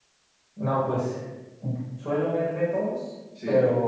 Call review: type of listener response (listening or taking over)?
listening